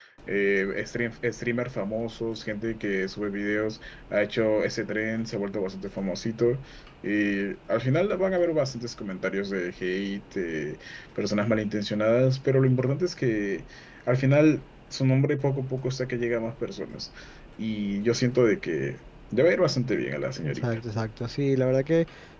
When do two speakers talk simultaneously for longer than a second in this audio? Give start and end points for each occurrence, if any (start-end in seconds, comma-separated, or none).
none